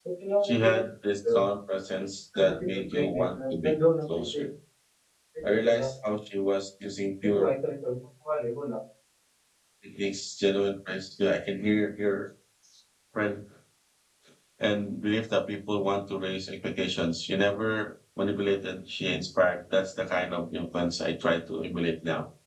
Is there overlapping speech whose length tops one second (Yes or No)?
Yes